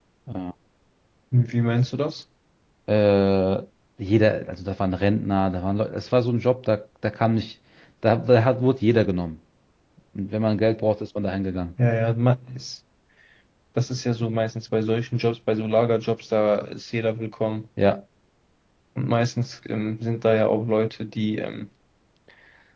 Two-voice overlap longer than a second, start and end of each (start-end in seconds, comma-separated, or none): none